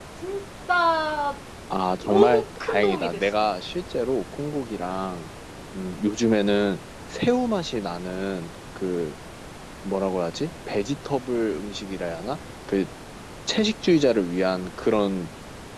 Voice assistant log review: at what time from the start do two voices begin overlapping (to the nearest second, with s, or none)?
2 s